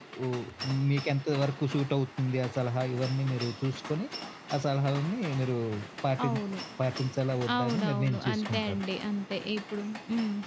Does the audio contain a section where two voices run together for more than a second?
Yes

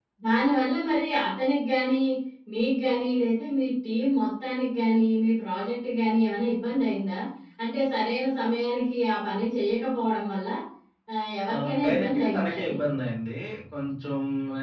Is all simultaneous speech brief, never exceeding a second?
No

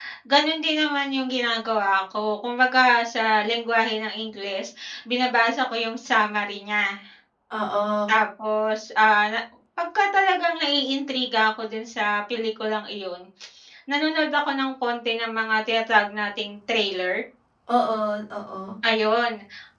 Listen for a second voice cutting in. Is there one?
No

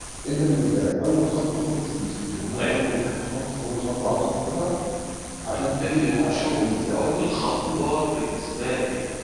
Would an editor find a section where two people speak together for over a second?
Yes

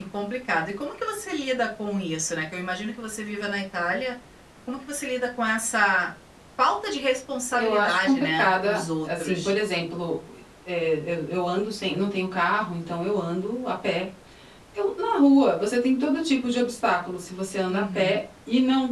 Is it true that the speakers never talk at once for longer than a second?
No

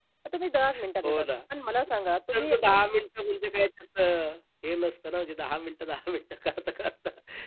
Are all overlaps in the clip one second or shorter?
Yes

